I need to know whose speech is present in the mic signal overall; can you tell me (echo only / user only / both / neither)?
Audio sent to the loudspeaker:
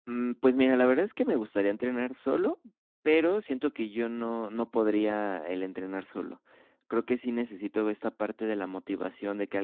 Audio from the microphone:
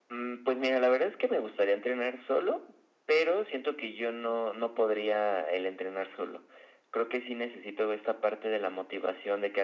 echo only